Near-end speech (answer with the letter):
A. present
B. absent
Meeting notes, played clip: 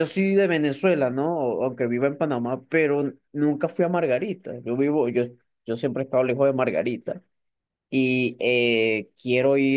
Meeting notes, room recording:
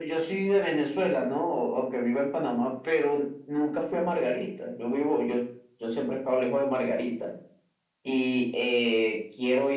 B